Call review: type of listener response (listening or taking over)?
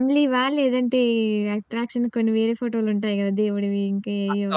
taking over